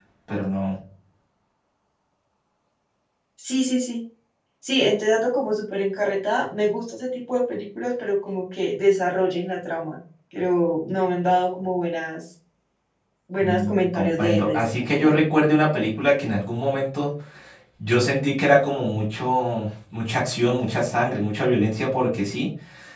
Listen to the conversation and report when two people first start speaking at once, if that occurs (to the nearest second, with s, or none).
13 s